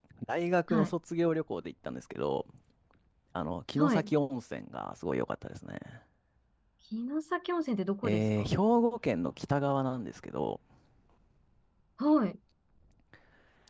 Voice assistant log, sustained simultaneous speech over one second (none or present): none